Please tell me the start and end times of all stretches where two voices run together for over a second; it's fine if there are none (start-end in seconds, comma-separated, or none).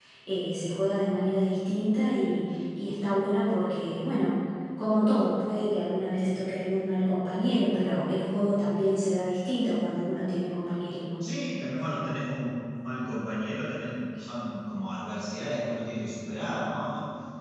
none